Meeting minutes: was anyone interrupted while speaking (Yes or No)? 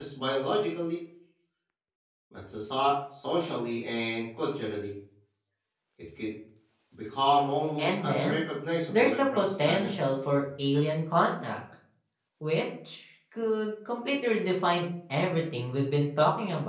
Yes